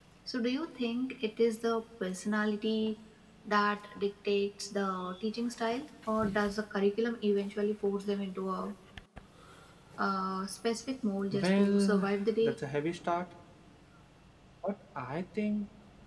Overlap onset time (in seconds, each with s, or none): 11.3 s